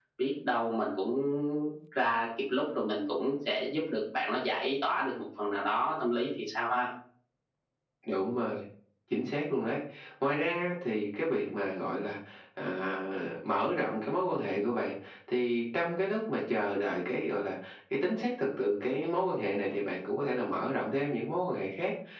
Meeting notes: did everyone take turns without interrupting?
Yes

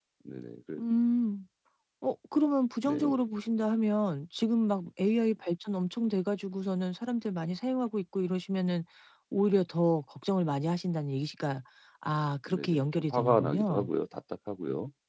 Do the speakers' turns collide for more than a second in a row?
Yes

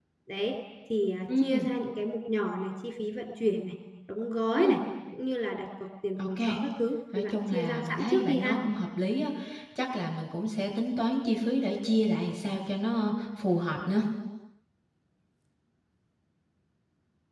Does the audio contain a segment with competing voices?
Yes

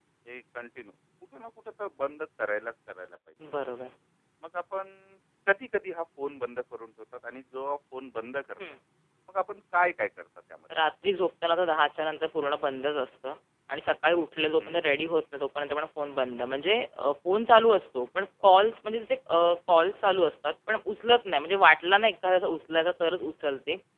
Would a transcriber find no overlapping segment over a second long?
Yes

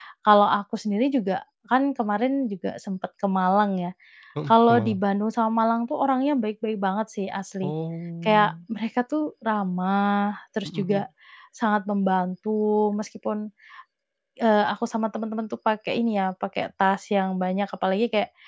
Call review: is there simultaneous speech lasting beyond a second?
No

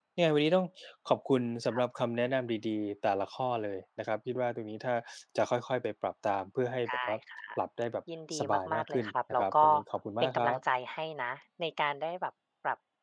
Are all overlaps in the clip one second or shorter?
No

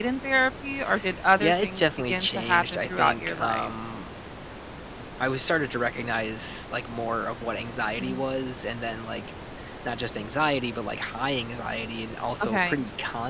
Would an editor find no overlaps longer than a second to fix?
No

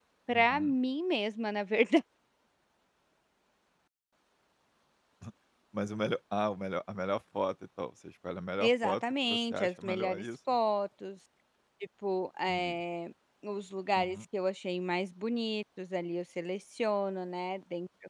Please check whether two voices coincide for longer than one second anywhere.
Yes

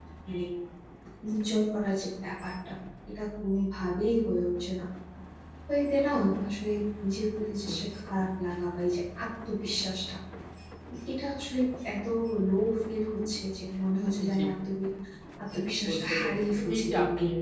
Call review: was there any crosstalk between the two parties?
Yes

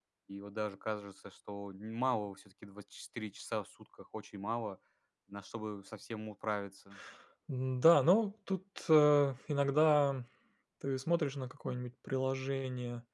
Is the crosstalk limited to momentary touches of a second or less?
Yes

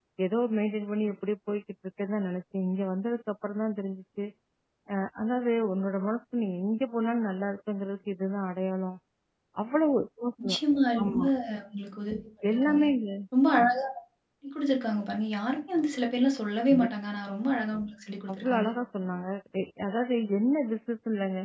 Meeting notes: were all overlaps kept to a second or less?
Yes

